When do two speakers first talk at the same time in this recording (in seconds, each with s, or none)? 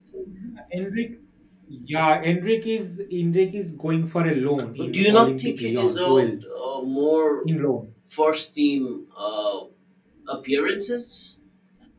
4.8 s